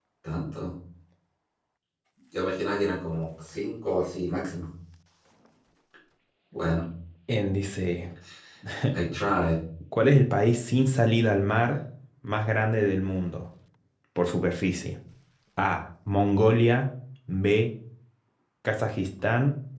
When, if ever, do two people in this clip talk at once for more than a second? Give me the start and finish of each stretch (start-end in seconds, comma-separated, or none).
none